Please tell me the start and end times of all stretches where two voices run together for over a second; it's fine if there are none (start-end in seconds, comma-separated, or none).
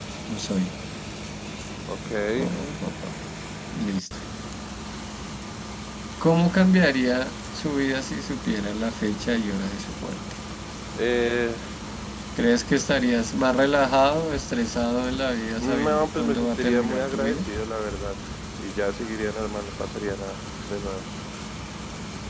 15.6-17.4